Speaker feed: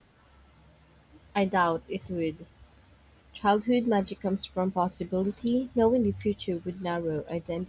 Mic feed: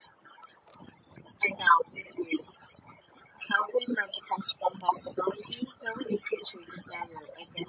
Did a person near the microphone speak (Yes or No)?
No